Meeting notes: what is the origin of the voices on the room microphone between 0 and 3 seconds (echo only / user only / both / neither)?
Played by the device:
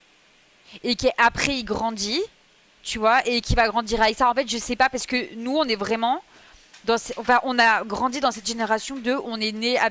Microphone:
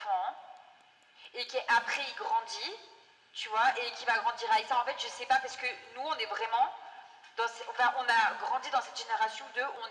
echo only